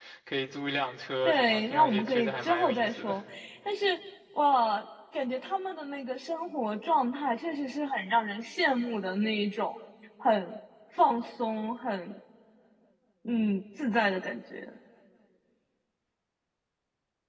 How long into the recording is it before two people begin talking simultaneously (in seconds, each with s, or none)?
1.2 s